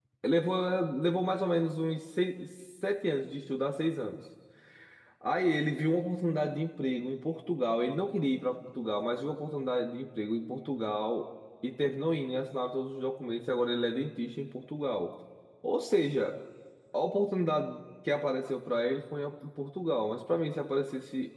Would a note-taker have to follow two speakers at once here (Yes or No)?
No